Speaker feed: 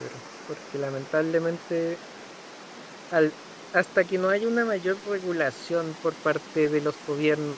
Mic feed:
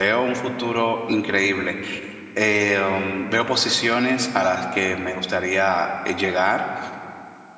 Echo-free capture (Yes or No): Yes